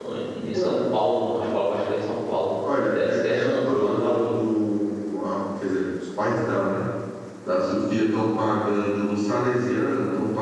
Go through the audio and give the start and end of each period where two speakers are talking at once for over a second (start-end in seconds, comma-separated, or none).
2.9-4.4